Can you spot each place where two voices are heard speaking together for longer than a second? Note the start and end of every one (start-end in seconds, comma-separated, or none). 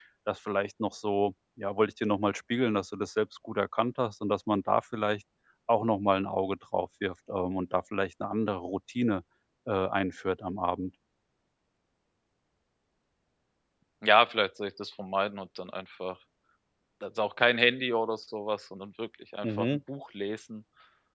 none